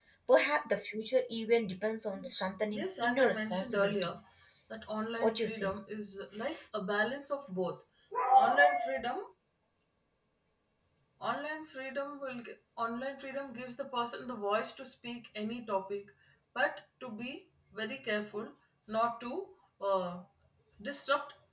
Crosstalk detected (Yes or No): Yes